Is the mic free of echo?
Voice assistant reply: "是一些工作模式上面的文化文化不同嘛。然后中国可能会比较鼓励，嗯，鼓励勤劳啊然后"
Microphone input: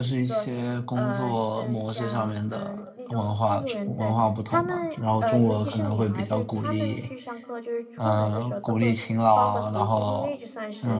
No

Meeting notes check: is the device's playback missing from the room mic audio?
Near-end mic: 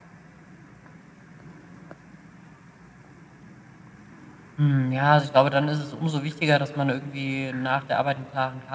Yes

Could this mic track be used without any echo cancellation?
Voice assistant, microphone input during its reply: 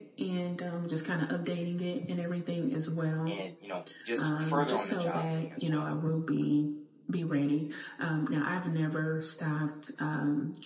No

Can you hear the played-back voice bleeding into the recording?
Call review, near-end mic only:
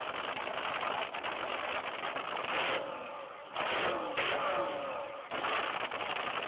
No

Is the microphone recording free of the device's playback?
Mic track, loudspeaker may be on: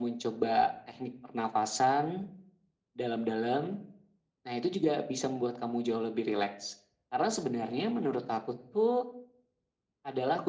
No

